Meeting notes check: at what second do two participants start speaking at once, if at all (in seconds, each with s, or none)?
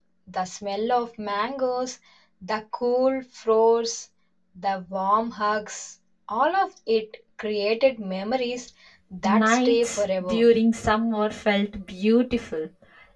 9.2 s